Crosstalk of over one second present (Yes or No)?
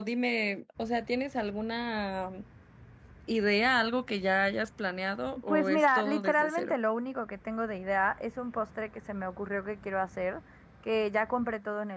Yes